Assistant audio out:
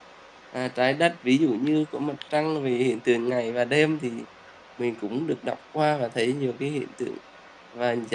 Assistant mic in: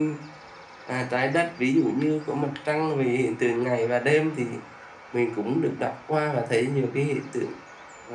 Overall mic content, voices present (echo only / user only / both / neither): echo only